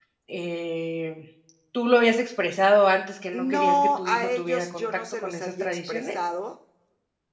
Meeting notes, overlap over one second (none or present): present